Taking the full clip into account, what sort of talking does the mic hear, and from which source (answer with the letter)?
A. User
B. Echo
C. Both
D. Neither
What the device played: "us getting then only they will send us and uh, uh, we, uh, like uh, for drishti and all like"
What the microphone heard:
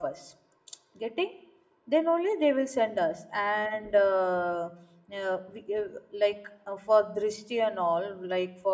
B